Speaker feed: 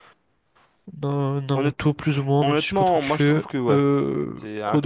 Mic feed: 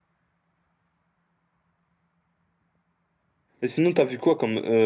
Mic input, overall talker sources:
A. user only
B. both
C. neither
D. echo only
A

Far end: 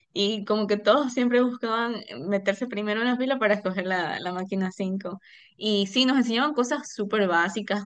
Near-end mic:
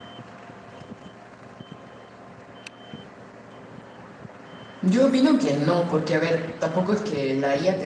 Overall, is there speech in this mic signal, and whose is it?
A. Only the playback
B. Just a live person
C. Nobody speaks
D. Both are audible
B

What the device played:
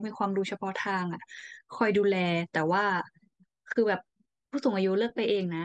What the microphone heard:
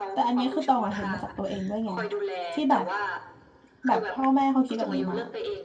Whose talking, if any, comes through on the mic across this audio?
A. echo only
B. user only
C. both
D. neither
C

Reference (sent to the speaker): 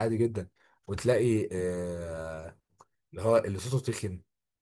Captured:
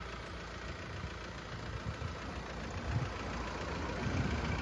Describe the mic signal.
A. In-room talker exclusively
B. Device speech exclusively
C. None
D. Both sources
C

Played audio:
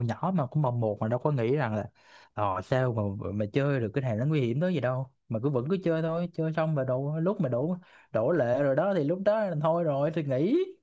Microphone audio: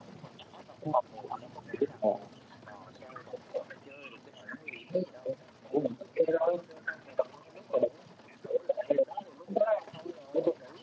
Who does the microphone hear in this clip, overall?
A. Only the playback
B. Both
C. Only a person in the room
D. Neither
A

